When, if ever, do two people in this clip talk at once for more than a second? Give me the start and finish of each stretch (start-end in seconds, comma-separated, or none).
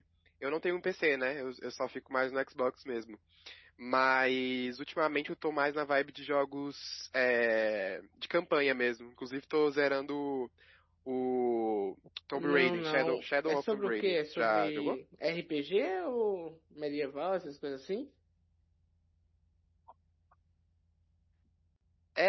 12.3-15.0